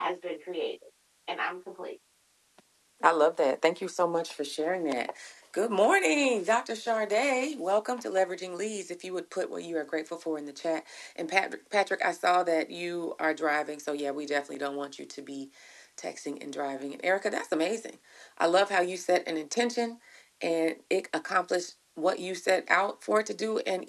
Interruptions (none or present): none